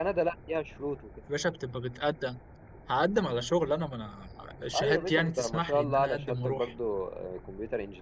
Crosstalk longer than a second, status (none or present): present